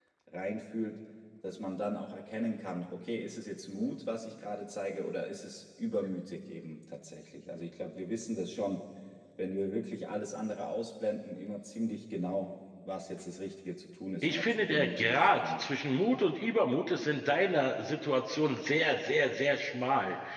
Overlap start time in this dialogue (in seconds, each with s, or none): 14.2 s